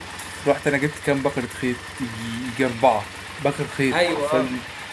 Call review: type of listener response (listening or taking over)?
listening